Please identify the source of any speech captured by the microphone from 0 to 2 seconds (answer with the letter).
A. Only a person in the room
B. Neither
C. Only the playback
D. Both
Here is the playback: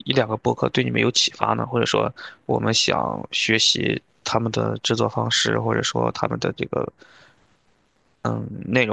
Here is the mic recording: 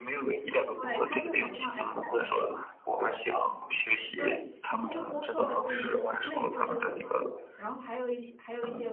D